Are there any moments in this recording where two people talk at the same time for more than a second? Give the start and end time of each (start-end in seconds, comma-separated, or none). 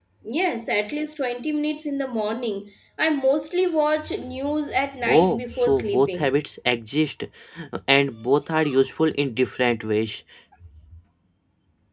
5.0-6.3